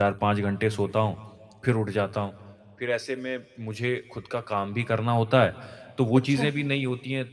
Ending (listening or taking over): listening